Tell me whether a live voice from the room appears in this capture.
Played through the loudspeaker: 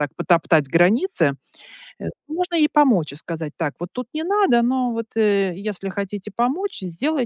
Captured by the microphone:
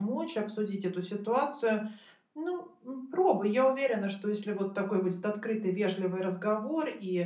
Yes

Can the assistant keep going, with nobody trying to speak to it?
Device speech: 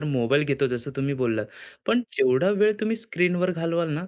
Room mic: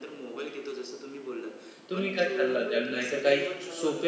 No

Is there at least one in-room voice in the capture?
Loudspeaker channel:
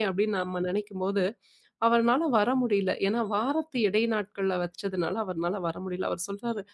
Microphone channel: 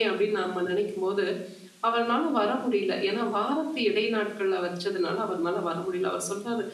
No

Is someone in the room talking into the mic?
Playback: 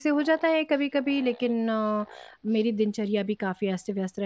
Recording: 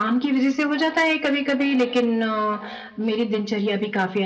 No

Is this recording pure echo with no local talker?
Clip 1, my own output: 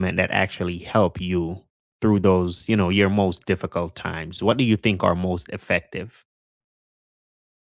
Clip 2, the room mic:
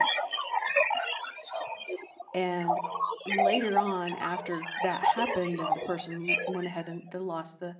No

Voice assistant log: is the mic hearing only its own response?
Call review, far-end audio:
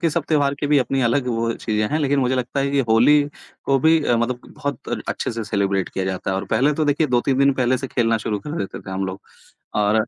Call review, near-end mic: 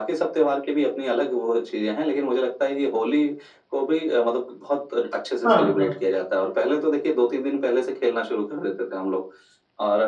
No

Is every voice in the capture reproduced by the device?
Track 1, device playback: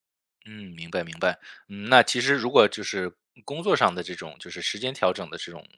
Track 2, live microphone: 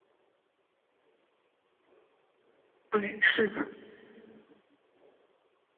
No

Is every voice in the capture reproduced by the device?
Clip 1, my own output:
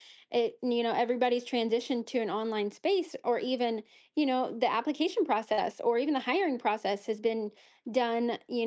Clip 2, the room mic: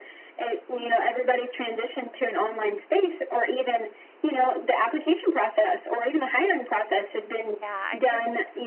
No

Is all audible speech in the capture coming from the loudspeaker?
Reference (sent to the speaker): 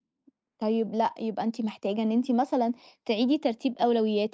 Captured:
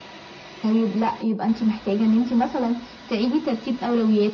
Yes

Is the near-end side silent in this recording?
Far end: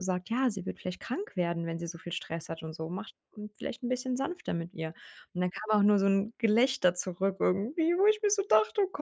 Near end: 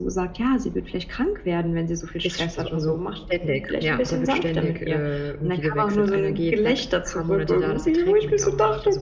No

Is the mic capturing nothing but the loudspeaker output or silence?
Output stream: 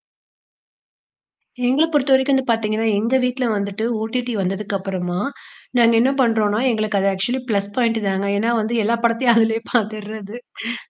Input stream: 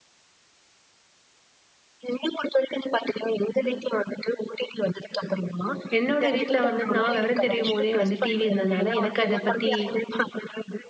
No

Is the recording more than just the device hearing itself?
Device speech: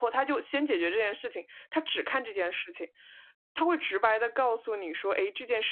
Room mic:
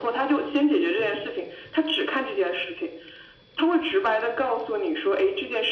No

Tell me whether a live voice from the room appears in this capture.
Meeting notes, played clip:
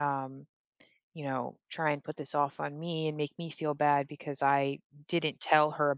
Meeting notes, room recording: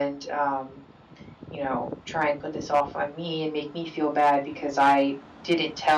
No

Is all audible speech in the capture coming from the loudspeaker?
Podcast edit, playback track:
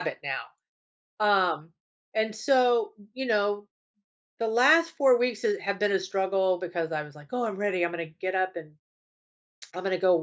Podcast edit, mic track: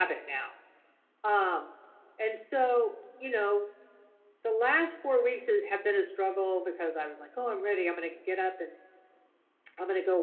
Yes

